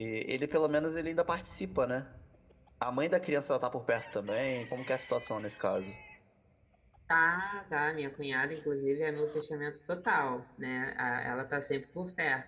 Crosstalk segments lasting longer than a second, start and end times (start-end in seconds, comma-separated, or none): none